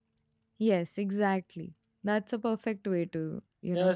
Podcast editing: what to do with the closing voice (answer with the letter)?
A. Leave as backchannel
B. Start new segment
B